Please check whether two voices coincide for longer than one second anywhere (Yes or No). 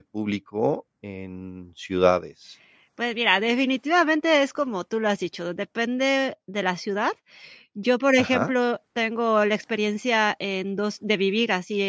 No